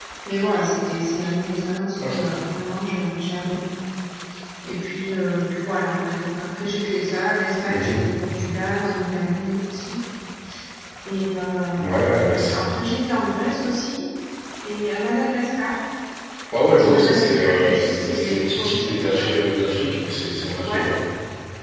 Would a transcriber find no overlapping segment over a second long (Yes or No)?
No